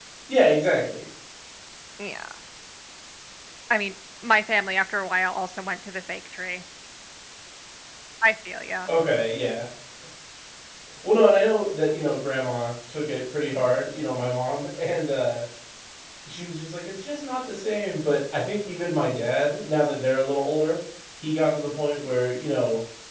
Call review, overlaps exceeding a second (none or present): none